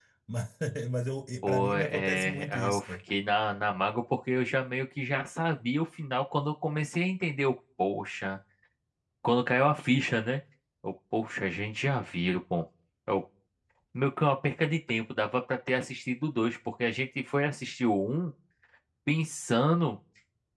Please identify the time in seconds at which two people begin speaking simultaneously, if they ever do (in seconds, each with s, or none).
1.5 s